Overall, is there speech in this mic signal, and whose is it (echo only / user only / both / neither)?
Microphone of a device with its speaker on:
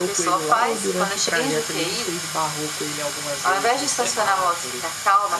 both